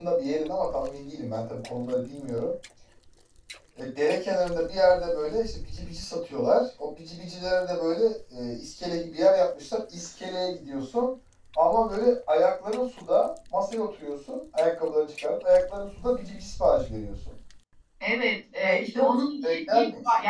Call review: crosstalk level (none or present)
present